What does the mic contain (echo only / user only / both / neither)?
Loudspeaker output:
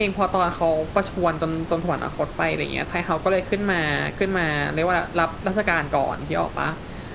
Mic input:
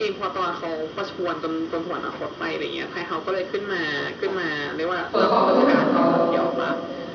both